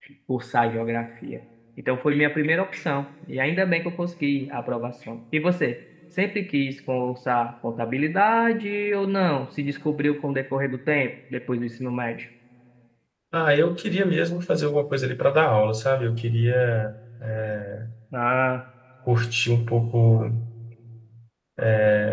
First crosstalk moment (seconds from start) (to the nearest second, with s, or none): none